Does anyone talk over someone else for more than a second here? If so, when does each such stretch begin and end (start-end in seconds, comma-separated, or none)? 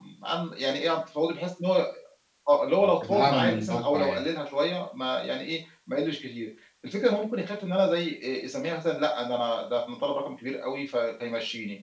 2.8-4.2